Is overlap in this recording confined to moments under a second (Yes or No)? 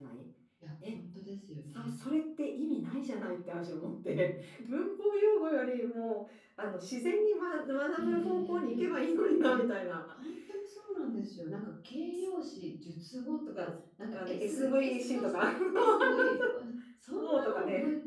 No